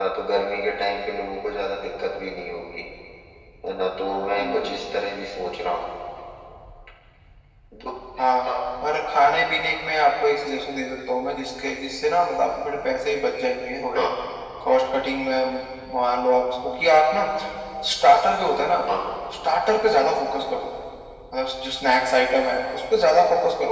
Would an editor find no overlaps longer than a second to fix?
Yes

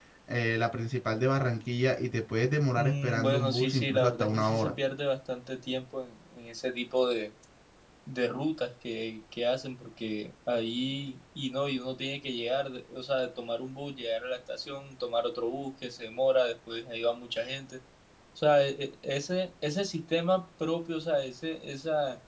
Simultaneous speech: Yes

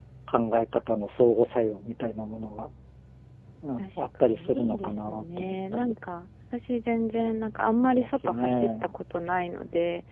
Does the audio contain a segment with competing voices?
Yes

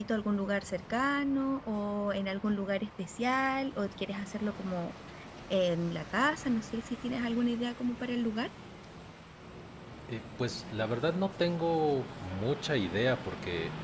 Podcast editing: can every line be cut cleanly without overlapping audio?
Yes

